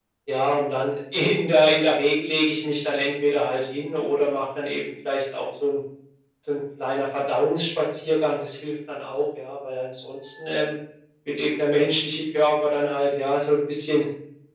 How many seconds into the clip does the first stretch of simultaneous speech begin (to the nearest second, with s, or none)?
none